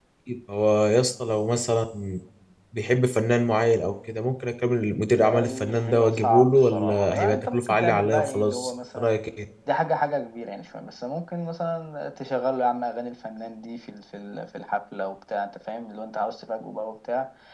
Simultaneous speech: Yes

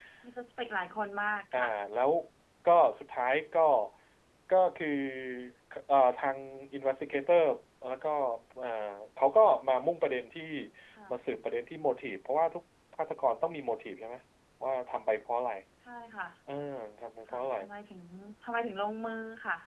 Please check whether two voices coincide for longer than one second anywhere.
No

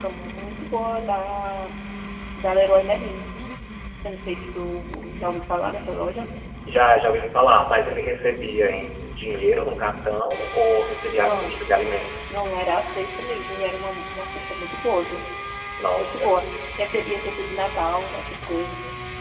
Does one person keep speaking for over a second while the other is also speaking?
No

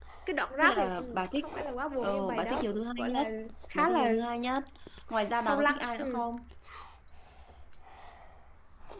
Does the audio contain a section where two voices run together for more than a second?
Yes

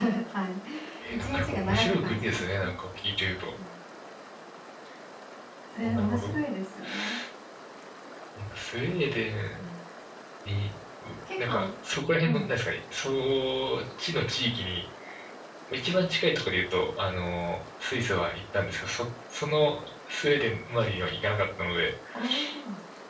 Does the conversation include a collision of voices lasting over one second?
Yes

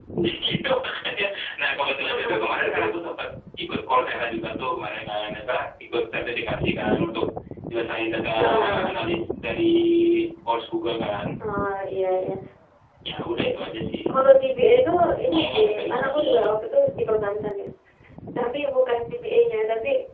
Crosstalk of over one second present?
Yes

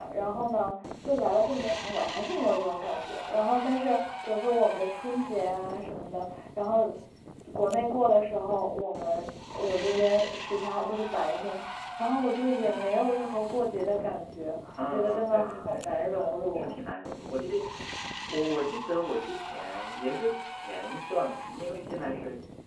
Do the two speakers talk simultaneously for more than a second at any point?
Yes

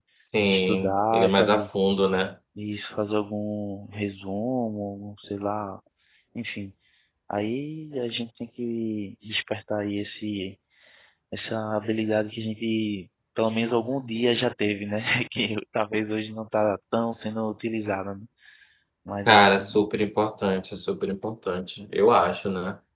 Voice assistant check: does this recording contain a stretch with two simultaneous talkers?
Yes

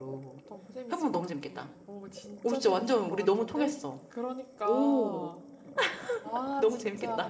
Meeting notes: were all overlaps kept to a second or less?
No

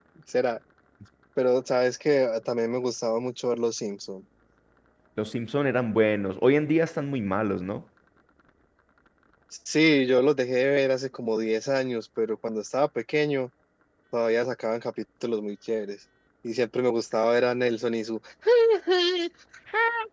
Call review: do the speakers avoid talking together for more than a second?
Yes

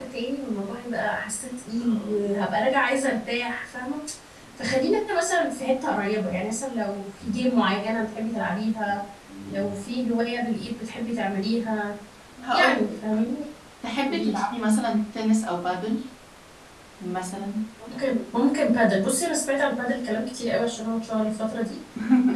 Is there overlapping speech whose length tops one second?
No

